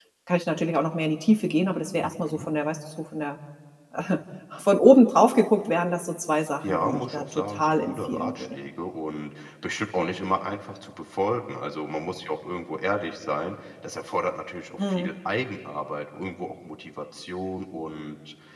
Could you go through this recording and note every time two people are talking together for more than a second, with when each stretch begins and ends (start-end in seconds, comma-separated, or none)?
6.7-8.6